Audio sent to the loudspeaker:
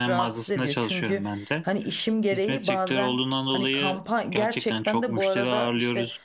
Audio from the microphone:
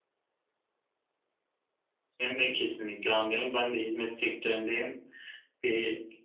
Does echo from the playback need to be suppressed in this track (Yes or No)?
No